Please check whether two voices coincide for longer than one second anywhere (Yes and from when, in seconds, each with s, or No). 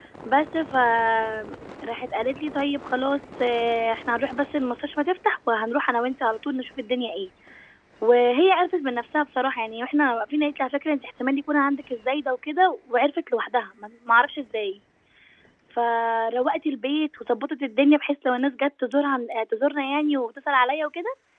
No